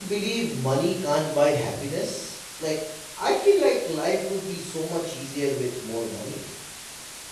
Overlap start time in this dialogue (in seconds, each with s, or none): none